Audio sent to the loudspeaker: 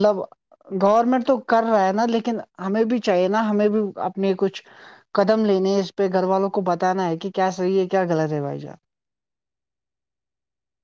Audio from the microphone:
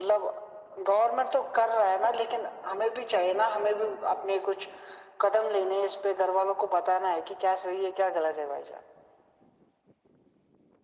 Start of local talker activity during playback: none

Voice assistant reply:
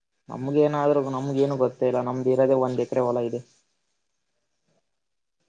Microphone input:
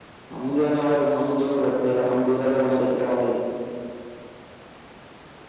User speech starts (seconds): none

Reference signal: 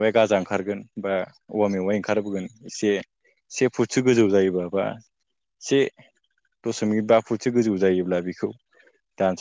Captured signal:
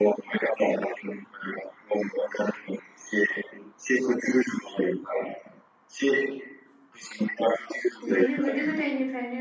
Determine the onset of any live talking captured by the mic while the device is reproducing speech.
8.0 s

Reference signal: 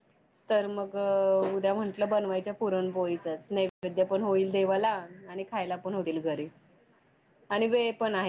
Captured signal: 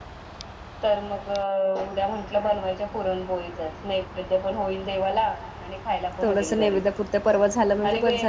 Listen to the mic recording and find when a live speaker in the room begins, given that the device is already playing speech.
6.2 s

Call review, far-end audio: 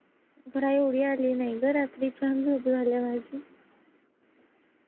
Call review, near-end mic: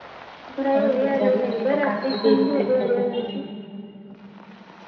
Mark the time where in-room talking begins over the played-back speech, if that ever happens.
0.8 s

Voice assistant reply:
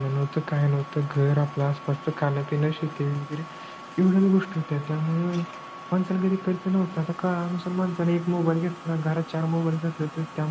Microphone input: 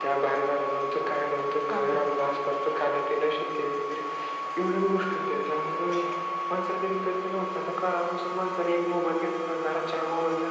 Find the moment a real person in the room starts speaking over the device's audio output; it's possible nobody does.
1.7 s

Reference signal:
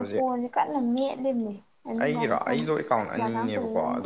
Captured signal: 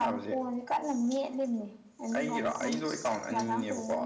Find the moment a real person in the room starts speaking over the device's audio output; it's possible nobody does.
none

